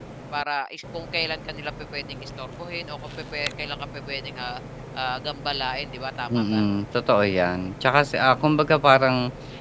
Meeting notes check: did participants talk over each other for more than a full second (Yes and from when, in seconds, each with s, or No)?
No